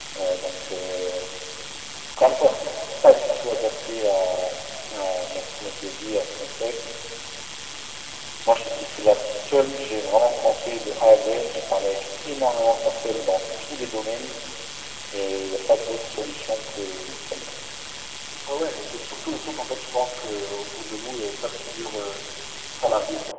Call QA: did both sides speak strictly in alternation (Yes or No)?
Yes